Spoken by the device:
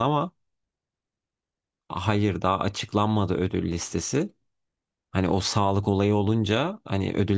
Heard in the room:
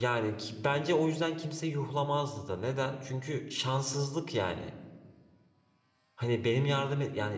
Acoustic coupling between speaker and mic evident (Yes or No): No